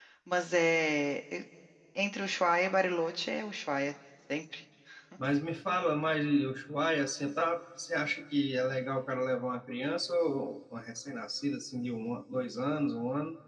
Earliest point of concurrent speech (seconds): none

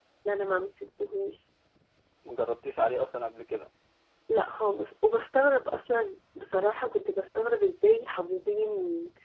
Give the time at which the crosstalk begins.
none

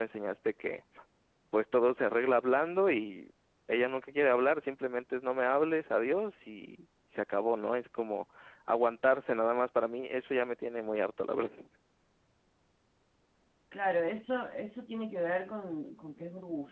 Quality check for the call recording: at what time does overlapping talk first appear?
none

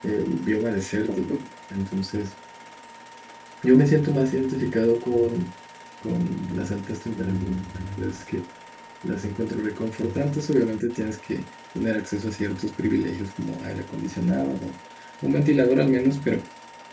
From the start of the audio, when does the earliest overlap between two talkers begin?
none

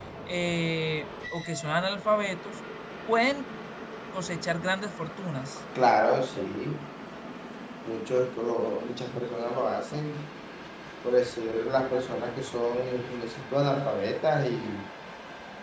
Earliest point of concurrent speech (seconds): none

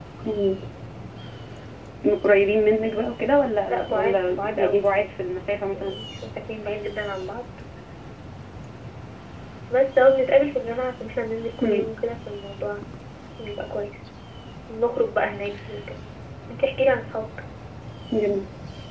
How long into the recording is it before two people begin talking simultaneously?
3.7 s

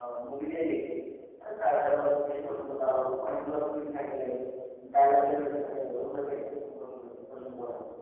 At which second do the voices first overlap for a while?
none

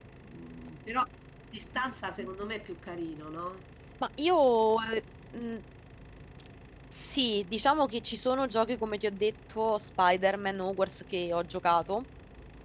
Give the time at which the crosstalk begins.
none

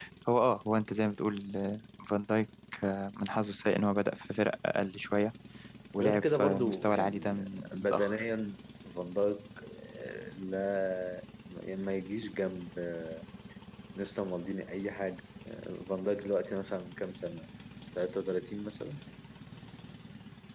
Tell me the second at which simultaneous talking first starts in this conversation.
6.0 s

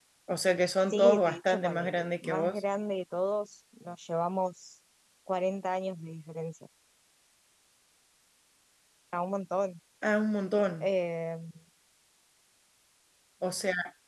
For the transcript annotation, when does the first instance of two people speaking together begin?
0.9 s

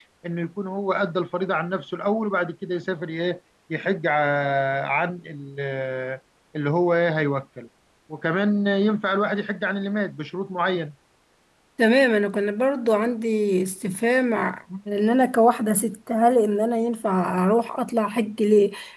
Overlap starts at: none

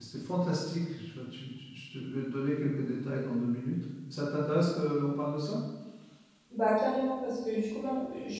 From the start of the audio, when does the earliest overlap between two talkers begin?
none

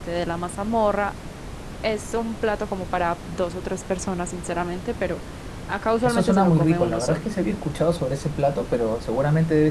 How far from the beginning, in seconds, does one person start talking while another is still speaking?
6.0 s

